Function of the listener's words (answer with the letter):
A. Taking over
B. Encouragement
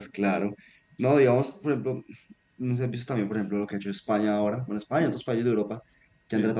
B